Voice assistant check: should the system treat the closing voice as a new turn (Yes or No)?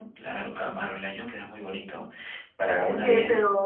Yes